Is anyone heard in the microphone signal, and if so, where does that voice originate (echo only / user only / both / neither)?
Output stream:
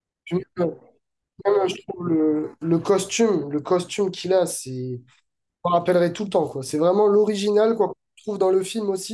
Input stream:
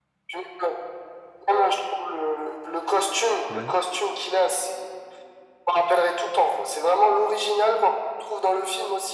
both